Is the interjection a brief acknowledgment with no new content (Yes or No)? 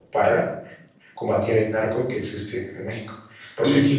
Yes